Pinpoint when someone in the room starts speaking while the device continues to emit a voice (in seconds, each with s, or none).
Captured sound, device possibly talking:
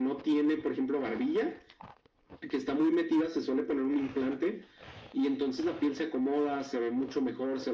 none